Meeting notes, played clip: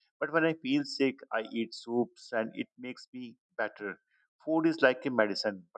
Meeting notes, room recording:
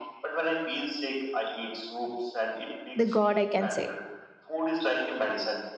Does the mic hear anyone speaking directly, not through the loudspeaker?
Yes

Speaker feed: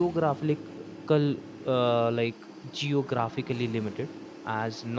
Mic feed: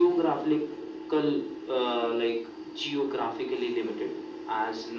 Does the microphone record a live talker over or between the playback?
No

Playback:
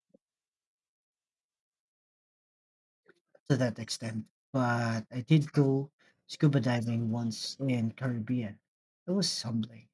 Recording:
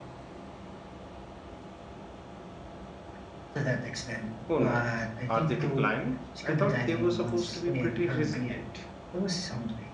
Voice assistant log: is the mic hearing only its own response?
No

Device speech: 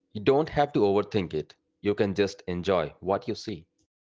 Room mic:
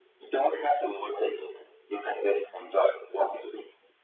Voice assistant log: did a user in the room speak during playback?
No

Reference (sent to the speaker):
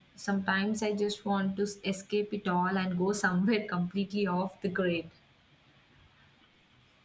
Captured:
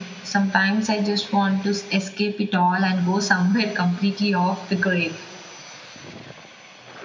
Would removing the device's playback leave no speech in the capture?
Yes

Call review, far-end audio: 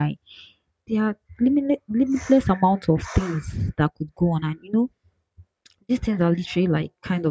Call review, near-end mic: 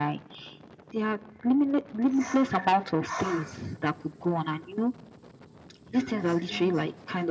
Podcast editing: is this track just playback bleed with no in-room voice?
No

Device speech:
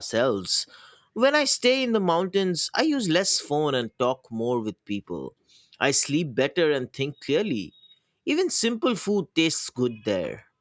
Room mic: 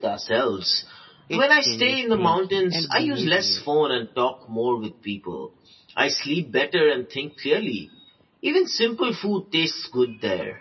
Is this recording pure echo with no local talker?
No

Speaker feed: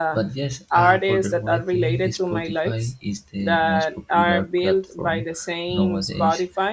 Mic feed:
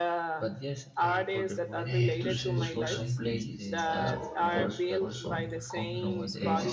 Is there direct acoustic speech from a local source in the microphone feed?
Yes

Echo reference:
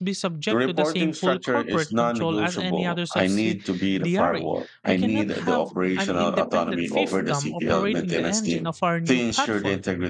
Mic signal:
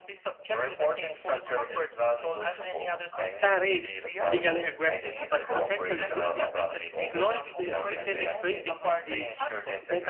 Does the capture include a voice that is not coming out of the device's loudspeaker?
Yes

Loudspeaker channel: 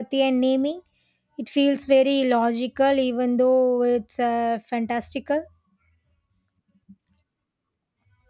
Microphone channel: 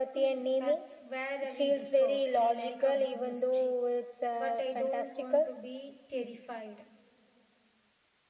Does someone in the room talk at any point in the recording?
Yes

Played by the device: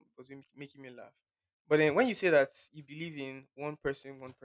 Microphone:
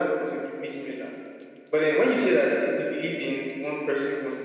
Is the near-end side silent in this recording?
Yes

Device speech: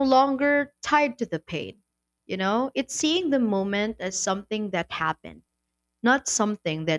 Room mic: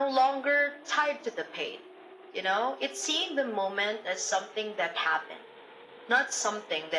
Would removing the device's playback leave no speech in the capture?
Yes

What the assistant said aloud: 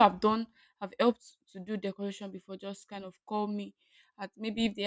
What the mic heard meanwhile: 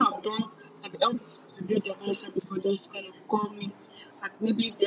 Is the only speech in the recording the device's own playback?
Yes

